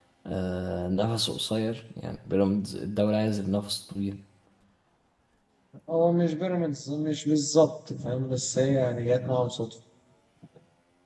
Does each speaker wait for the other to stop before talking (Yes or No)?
Yes